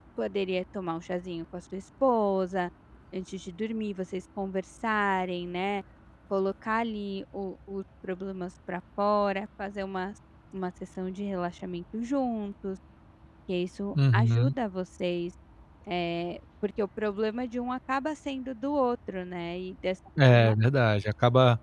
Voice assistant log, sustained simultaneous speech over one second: none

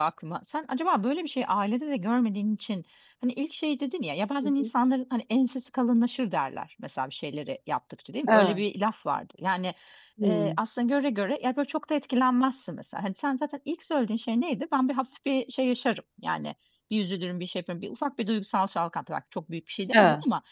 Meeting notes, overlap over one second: none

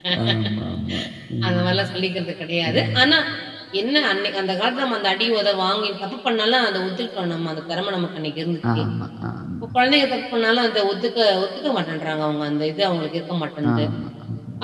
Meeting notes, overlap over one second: none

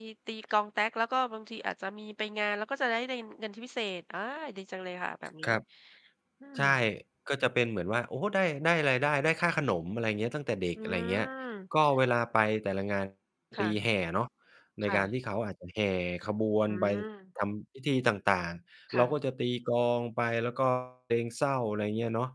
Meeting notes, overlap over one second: none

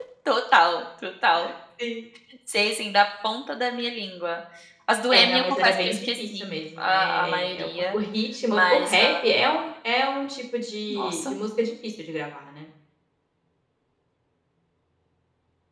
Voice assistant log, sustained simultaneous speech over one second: present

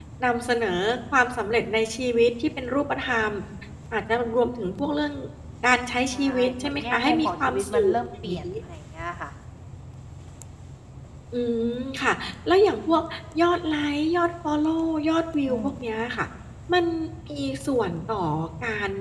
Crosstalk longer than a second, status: present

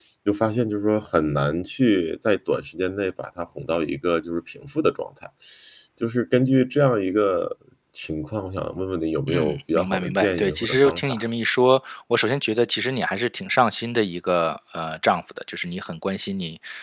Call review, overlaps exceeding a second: present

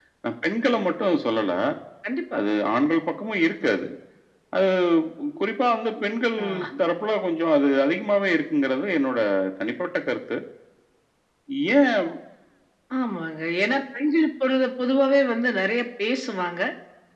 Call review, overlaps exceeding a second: none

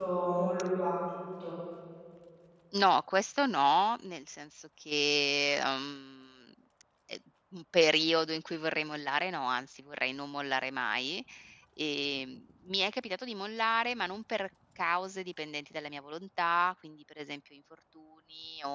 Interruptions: none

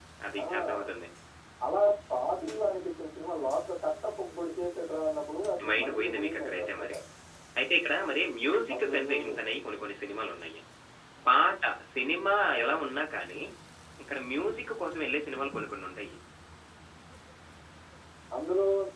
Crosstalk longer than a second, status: present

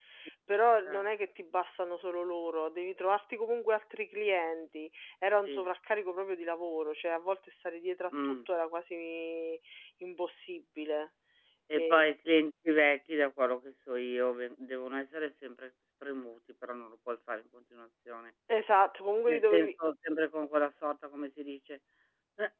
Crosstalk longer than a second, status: none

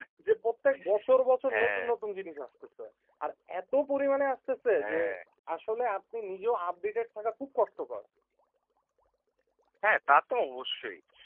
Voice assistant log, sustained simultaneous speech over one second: none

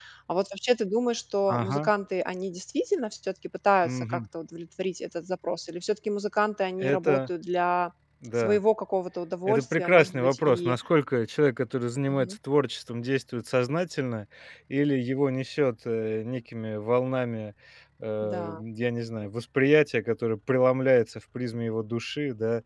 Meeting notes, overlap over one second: present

